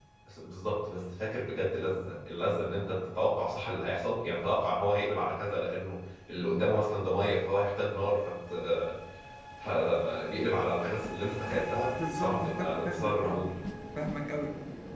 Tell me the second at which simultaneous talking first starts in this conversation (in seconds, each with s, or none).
12.0 s